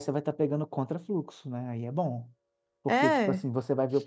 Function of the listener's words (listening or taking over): listening